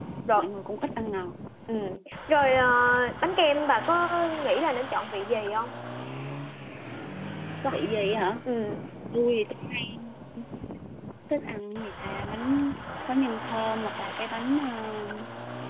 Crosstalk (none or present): none